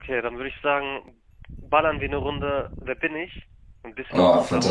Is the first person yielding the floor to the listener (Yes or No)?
Yes